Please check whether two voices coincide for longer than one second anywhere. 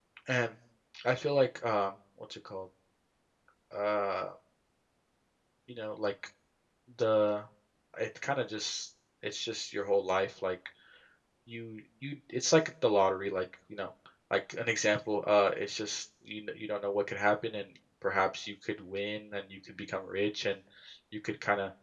No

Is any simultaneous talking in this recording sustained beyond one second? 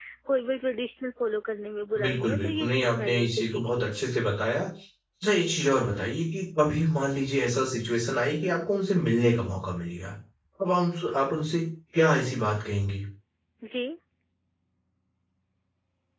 Yes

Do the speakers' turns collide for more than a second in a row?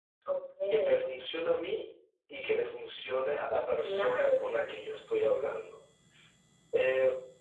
Yes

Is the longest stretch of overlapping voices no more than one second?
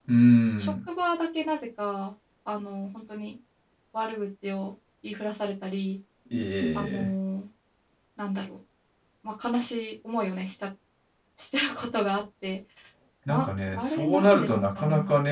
No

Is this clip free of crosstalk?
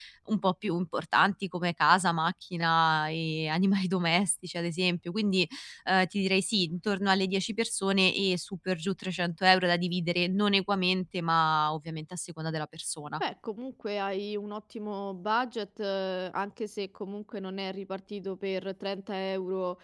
Yes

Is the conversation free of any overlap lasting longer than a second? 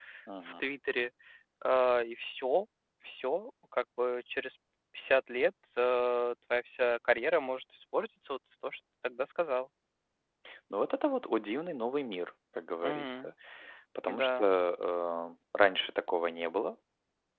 Yes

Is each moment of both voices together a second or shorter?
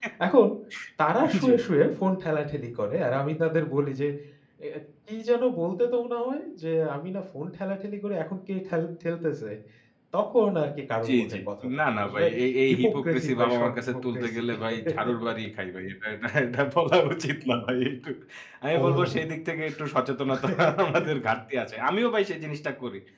No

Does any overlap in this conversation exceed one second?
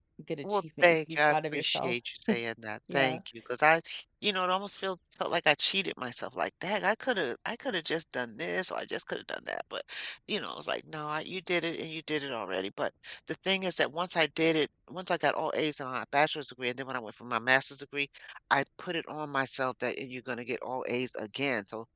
Yes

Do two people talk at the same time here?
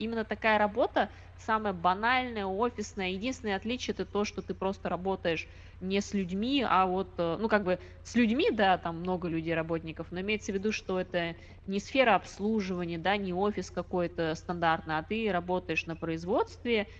No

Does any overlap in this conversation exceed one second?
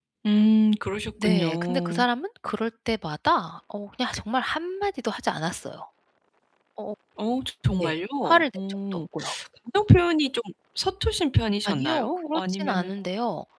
Yes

